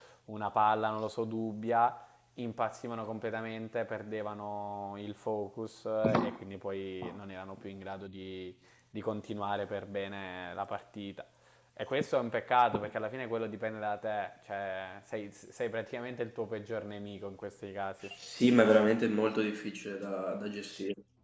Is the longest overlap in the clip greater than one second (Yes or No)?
No